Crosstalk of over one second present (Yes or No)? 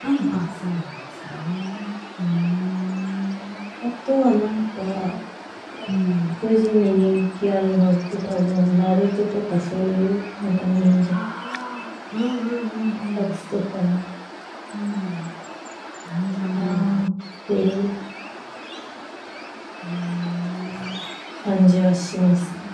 No